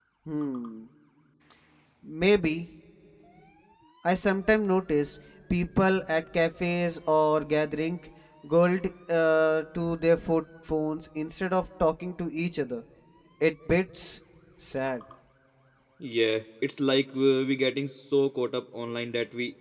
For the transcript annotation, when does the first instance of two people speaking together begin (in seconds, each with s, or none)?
none